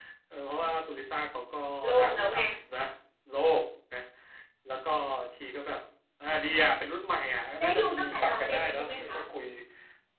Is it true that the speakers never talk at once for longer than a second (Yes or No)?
No